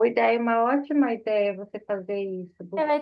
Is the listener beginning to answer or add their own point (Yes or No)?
Yes